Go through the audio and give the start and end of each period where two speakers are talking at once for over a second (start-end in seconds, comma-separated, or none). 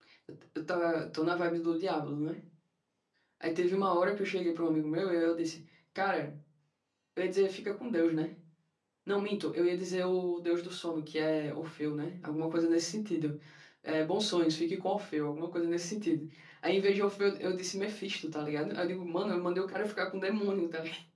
none